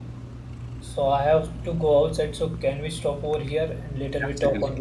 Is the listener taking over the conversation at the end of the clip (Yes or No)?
Yes